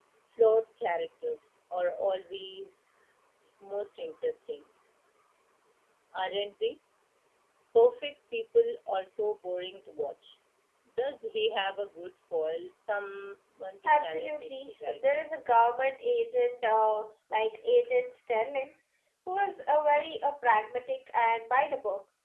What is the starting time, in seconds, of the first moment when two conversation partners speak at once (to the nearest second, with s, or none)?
14 s